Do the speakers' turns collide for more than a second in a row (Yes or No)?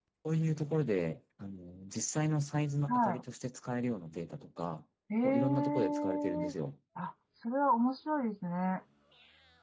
Yes